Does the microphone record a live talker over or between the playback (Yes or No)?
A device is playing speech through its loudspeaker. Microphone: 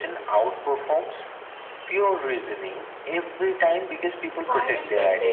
Yes